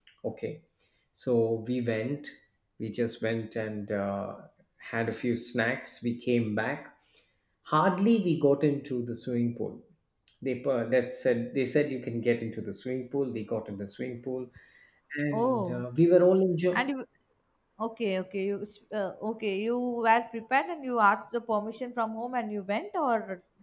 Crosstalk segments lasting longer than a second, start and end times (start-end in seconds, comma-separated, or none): none